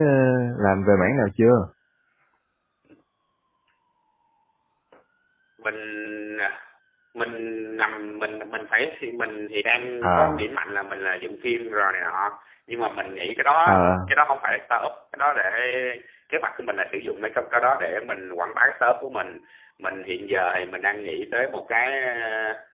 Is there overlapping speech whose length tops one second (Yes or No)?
No